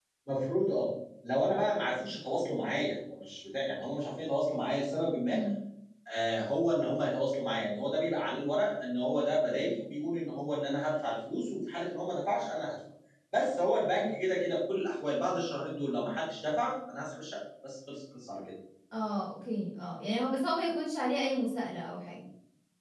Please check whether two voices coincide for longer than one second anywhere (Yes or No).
No